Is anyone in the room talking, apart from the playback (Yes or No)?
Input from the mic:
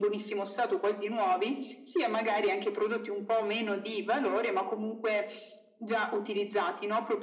No